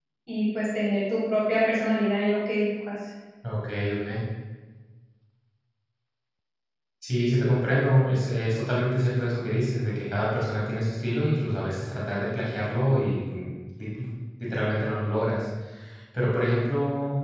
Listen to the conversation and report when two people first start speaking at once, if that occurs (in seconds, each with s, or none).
none